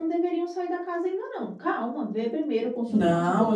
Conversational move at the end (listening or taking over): taking over